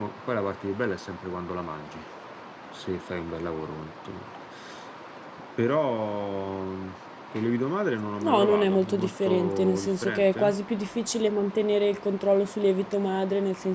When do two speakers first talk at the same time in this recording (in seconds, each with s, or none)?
8.2 s